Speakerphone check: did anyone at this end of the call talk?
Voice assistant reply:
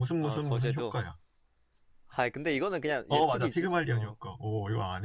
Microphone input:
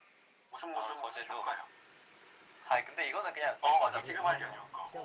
Yes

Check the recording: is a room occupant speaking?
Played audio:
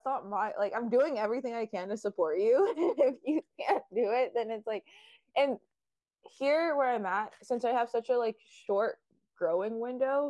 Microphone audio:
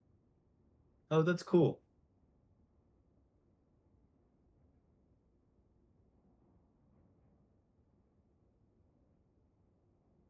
Yes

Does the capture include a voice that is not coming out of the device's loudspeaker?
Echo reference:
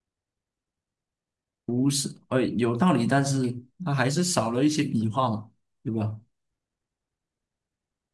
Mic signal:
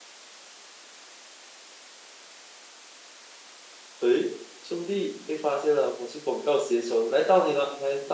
Yes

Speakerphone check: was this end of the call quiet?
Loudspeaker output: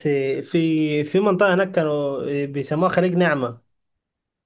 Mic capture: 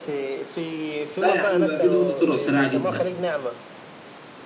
No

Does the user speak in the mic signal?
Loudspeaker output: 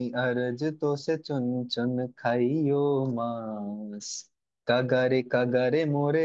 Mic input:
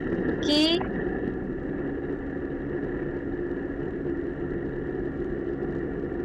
Yes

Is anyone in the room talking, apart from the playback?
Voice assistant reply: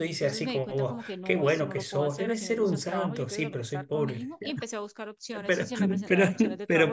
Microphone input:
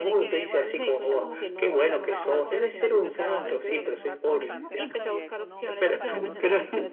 Yes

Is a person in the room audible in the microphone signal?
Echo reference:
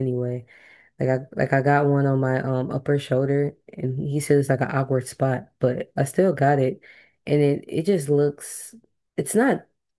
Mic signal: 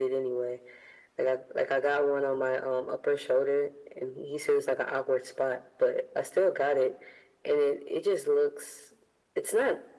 No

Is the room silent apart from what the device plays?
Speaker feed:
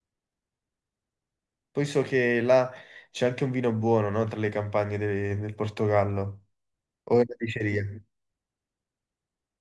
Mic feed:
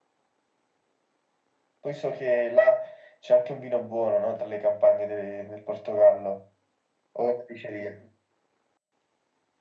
Yes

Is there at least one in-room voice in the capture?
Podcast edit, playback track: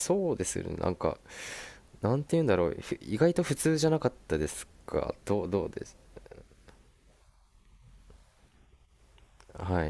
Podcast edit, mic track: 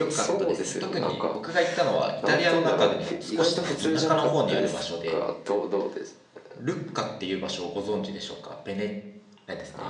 Yes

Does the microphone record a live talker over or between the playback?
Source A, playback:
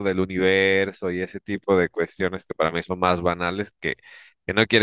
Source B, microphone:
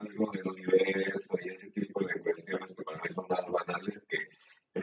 No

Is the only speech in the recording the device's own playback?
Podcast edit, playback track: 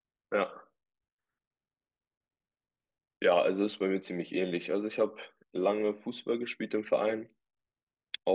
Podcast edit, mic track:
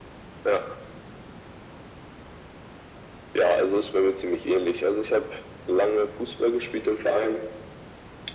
Yes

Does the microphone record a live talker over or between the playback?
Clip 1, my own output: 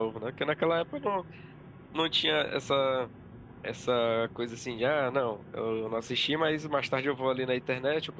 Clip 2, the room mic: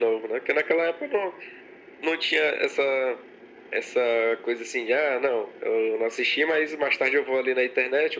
No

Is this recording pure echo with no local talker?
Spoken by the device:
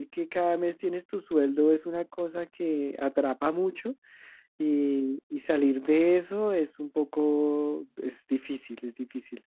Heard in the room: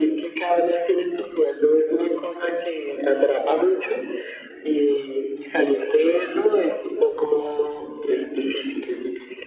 Yes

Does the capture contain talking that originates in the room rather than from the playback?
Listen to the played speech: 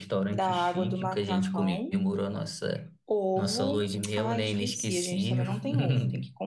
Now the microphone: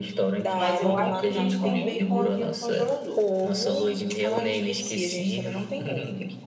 Yes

